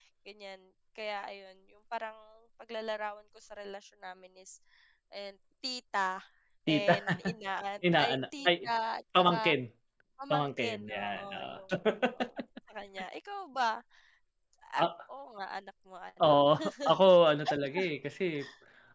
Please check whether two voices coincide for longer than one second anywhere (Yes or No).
Yes